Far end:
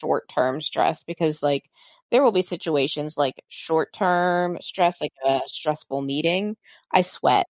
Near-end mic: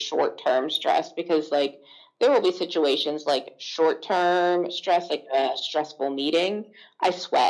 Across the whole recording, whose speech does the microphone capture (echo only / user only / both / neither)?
echo only